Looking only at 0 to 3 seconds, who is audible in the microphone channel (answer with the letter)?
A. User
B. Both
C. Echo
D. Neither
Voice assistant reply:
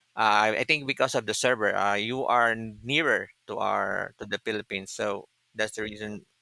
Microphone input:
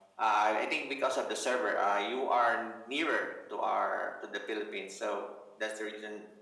C